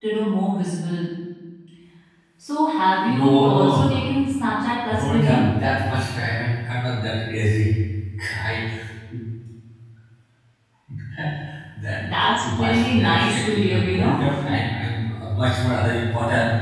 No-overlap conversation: No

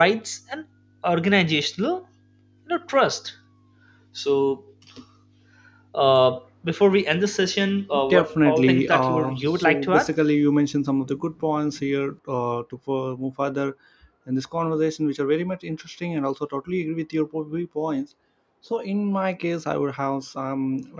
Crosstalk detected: Yes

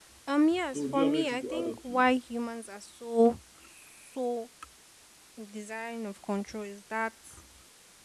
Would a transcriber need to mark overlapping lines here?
Yes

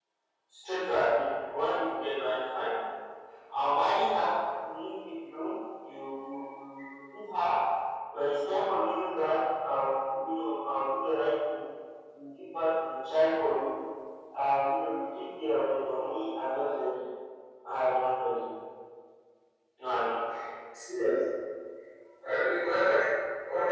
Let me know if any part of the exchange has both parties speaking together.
No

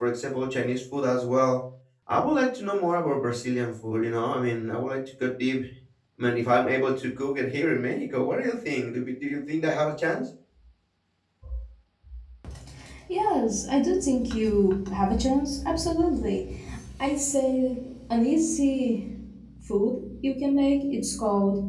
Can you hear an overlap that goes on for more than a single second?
No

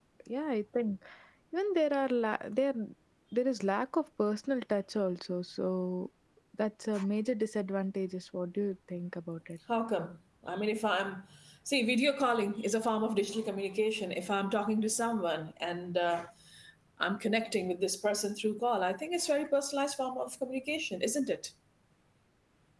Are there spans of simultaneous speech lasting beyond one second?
No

